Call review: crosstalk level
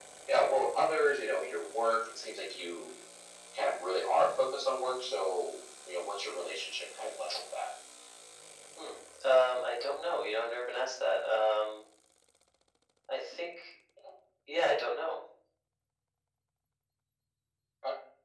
none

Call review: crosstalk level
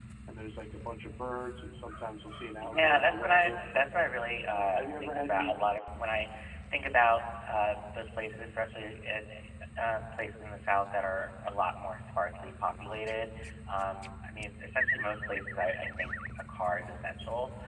present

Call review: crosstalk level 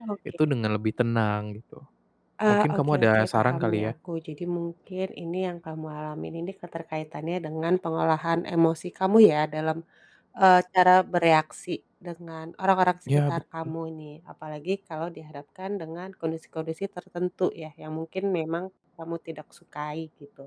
present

